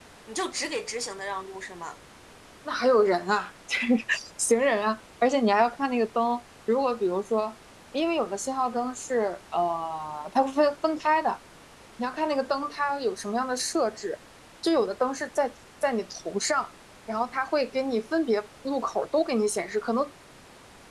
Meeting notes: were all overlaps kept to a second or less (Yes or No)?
Yes